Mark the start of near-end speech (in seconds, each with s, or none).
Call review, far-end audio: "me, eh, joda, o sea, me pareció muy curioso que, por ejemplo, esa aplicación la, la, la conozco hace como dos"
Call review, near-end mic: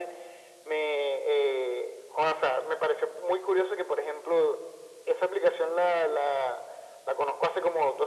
none